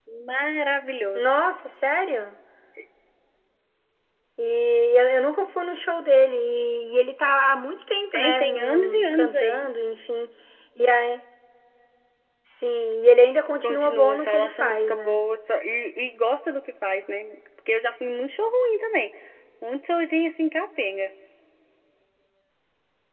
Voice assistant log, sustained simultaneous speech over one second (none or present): present